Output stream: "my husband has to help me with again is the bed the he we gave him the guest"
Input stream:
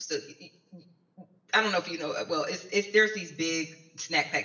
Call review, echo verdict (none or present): none